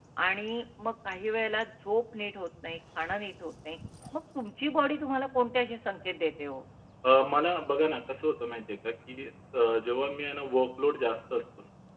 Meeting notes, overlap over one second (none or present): none